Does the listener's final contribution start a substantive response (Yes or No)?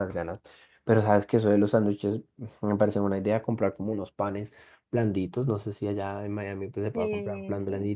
No